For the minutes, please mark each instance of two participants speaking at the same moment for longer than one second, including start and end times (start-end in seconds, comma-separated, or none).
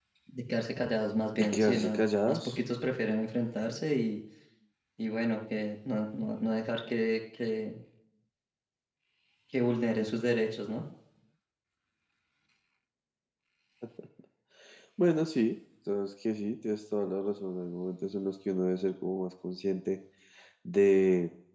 1.4-2.6